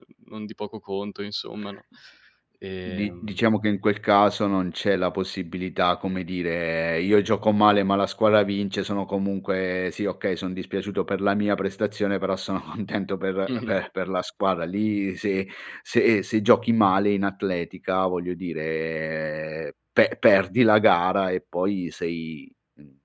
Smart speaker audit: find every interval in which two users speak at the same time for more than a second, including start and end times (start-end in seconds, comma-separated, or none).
none